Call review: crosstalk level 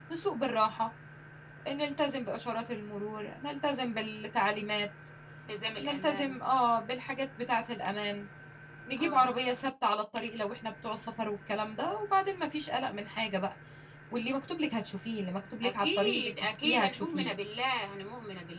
present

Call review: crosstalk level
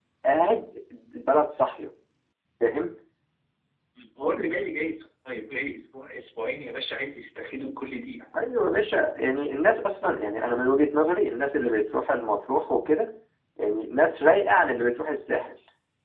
none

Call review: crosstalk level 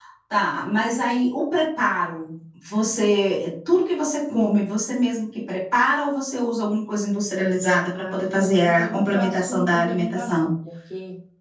present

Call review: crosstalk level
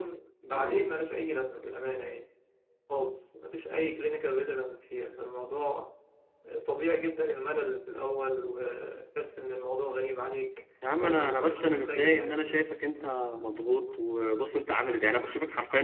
present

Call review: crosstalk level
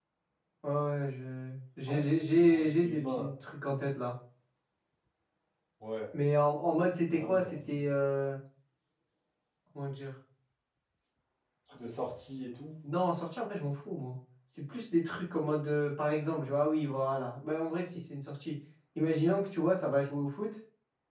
present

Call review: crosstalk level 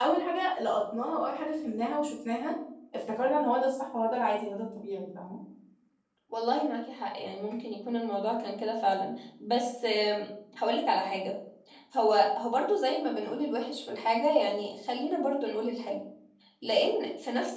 none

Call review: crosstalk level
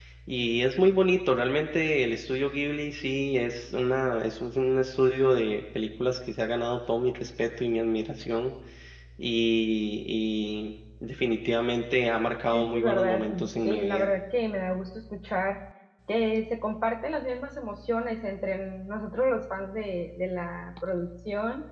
present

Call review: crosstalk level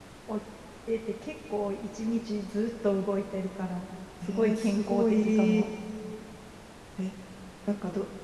present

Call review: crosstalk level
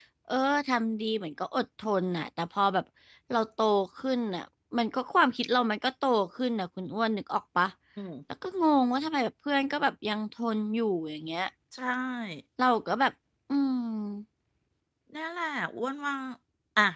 none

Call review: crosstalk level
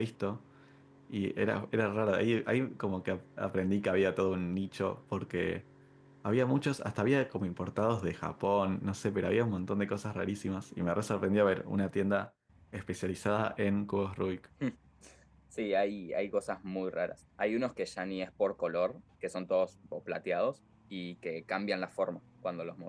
none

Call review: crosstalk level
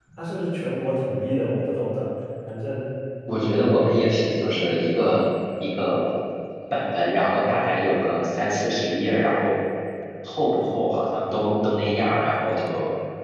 none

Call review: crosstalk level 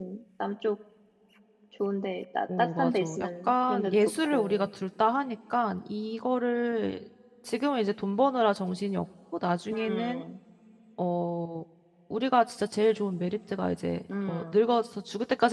present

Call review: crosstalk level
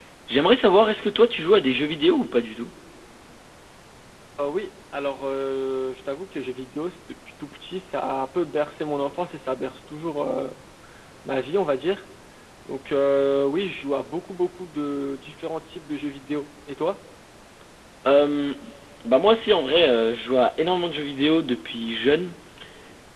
none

